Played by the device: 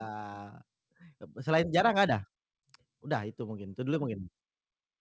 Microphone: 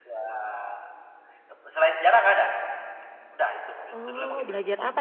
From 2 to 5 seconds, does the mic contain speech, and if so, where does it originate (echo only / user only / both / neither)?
both